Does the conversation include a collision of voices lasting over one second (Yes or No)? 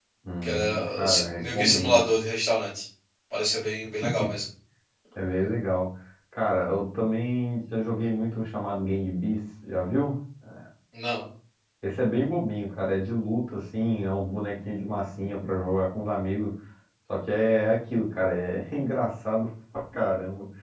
Yes